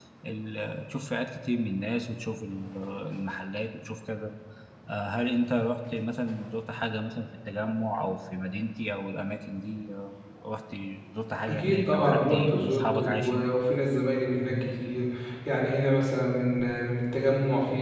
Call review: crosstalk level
present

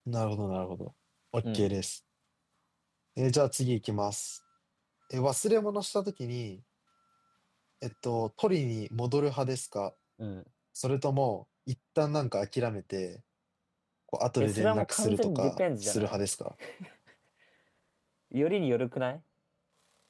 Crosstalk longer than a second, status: present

